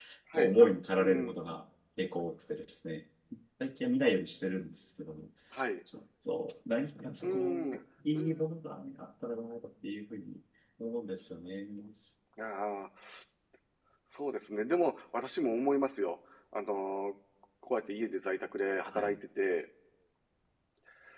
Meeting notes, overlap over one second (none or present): none